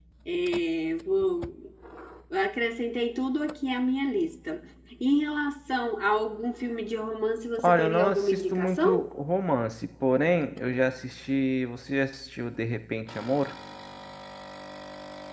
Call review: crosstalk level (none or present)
present